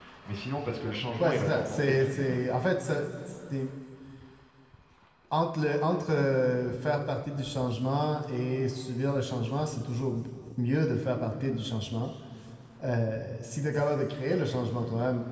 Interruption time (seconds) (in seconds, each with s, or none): 1.2 s